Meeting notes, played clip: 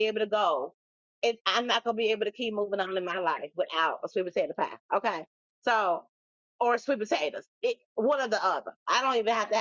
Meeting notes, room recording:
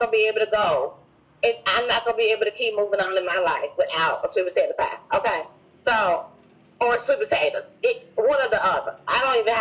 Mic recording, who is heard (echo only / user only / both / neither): echo only